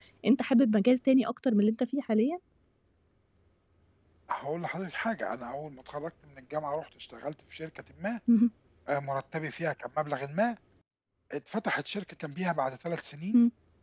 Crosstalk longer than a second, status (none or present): none